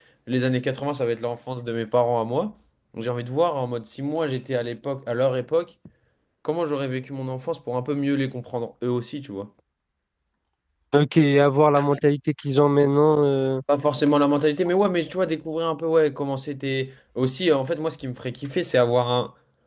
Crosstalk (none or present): none